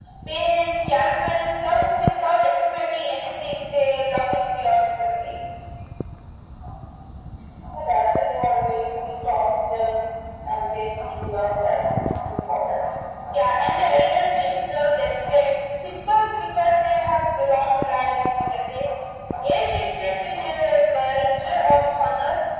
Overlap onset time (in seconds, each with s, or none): none